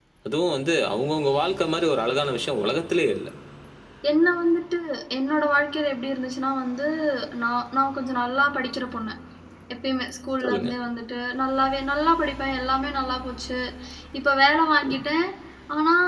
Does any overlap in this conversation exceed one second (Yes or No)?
No